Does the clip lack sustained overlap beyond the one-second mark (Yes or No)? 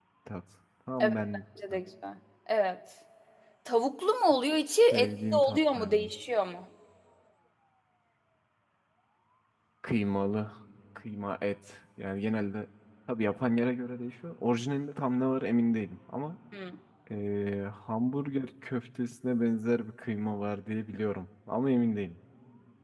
No